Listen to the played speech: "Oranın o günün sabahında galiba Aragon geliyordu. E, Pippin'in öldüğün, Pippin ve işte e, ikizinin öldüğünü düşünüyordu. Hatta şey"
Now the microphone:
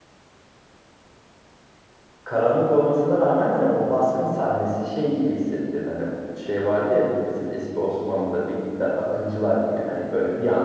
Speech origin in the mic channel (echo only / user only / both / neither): user only